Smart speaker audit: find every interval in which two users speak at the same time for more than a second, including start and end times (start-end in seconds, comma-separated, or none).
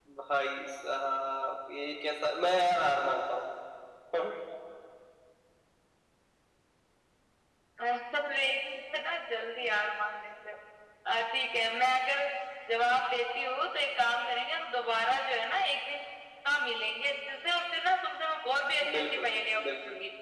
none